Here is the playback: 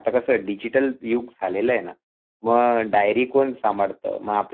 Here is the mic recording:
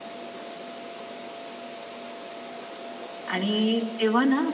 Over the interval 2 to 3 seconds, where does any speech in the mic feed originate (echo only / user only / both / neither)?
neither